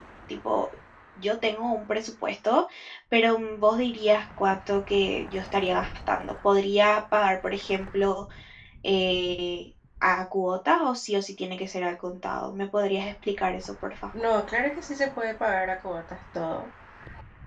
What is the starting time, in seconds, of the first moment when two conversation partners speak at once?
none

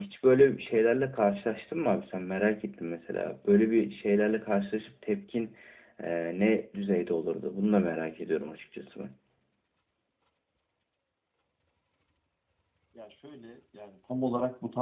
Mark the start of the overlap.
none

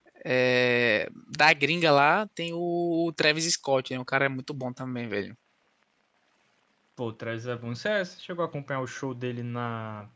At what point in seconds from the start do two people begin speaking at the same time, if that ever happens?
none

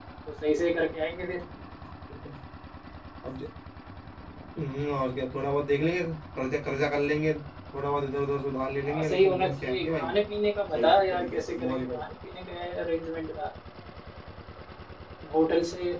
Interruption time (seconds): 9 s

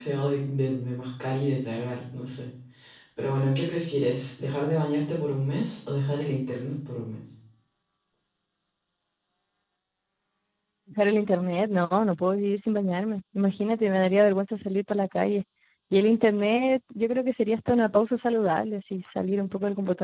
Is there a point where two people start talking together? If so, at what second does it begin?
none

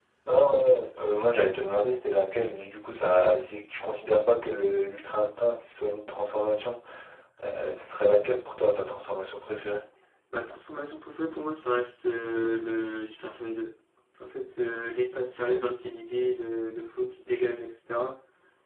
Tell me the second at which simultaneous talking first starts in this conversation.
none

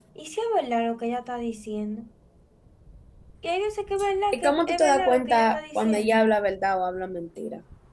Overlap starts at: 4 s

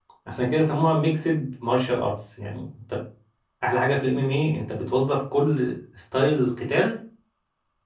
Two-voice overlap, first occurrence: none

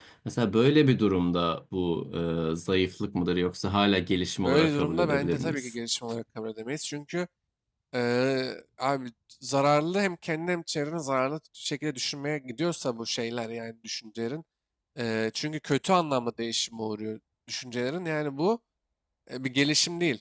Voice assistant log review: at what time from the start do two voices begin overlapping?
4 s

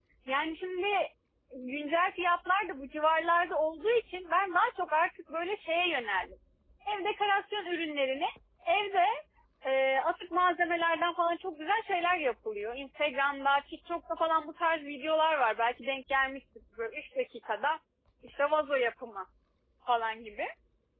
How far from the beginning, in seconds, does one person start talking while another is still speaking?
none

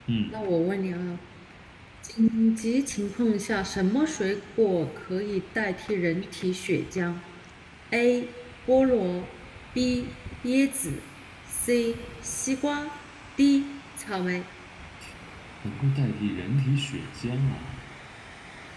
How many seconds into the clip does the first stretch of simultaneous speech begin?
none

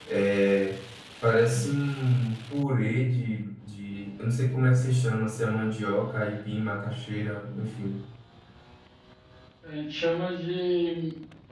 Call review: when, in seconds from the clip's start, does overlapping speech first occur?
none

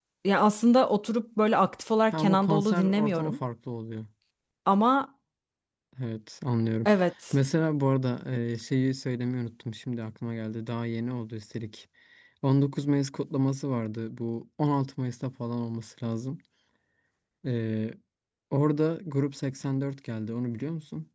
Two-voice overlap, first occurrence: 2 s

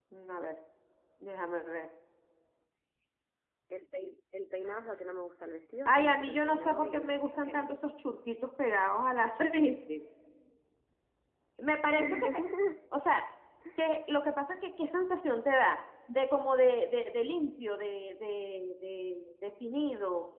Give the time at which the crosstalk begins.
6 s

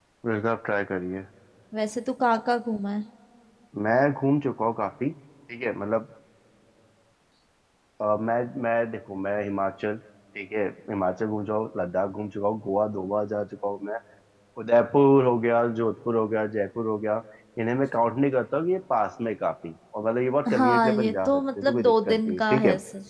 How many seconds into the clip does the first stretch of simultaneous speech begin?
20 s

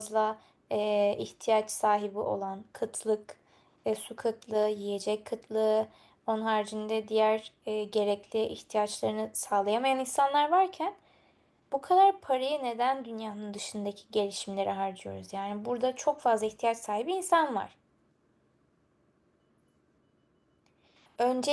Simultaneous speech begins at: none

